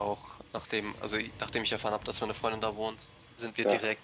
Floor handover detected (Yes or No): No